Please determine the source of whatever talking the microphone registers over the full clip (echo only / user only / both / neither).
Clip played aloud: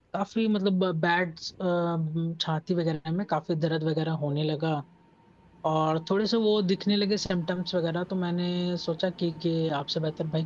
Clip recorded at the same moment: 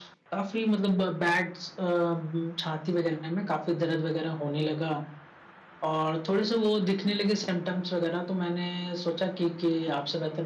echo only